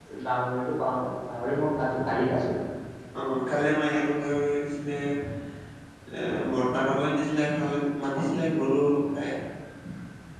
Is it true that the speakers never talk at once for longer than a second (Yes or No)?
Yes